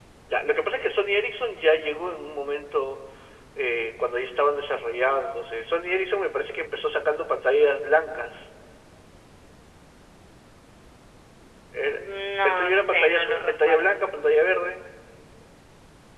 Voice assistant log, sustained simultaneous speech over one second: present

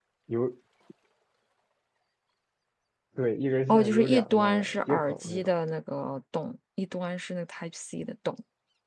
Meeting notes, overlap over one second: present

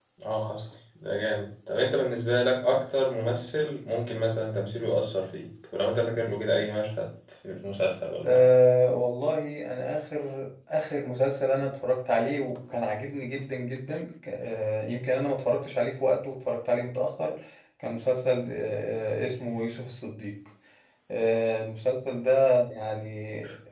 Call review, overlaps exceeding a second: none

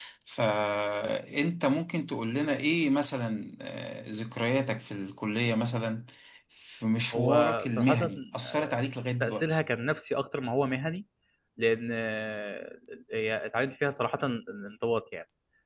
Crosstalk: present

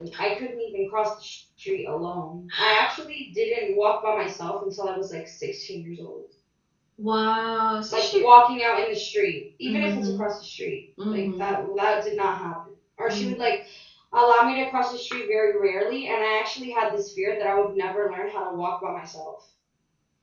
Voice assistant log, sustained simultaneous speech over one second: none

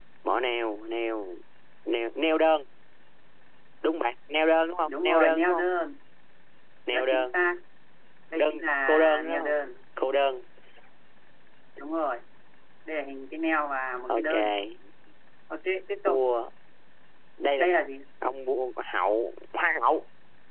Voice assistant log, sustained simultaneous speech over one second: present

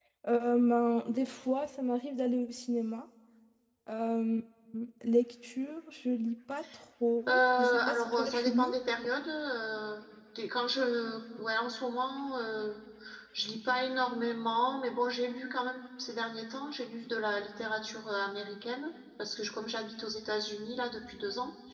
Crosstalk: present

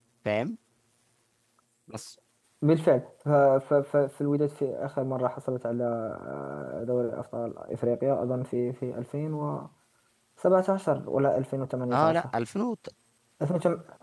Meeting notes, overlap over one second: none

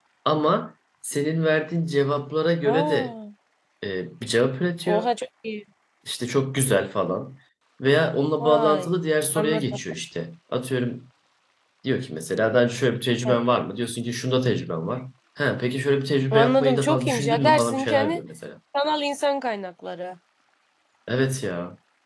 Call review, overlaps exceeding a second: present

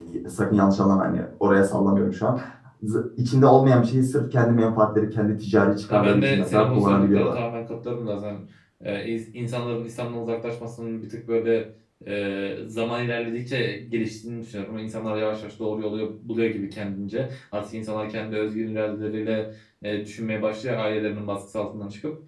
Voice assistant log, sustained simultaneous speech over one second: present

